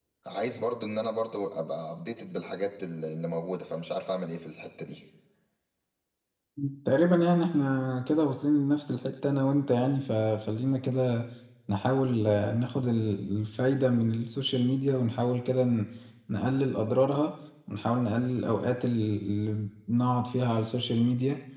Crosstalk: none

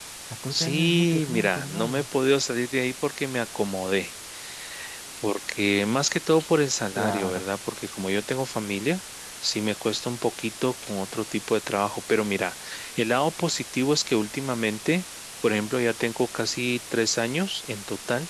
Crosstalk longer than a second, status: present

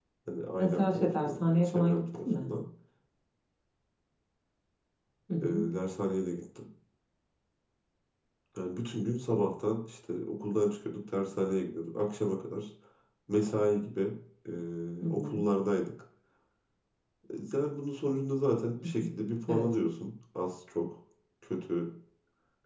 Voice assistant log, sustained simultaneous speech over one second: present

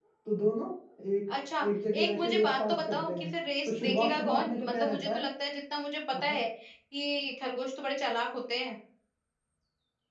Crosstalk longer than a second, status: present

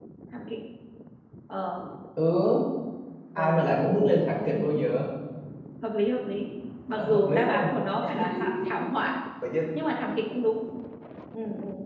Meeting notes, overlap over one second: present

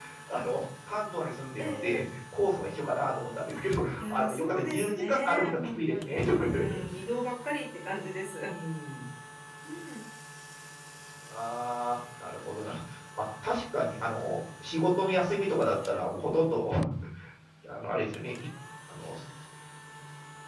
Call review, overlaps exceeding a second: present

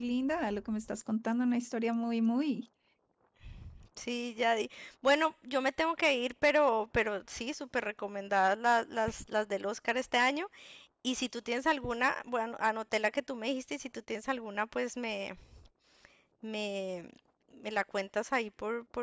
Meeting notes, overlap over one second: none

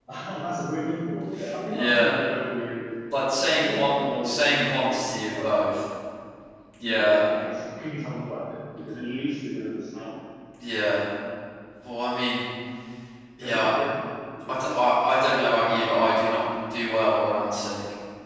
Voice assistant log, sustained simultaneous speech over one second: present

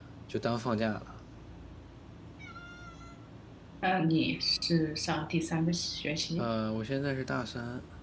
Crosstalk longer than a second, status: none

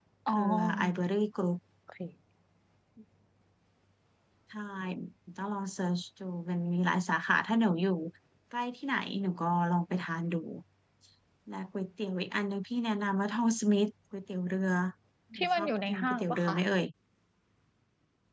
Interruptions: present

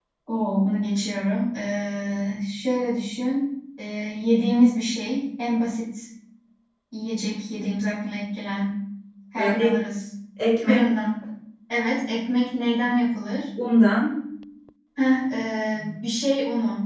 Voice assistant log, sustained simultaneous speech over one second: none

